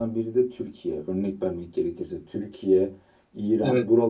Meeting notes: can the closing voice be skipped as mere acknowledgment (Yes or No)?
Yes